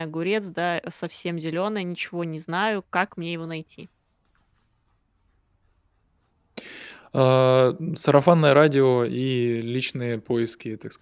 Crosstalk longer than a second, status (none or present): none